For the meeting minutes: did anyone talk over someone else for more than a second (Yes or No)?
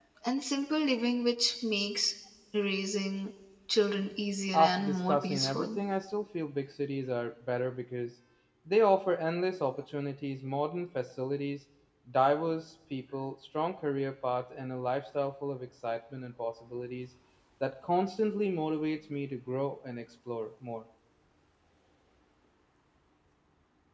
Yes